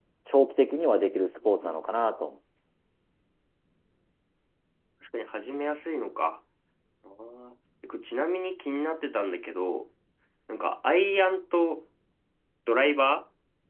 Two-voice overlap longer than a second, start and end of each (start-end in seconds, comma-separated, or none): none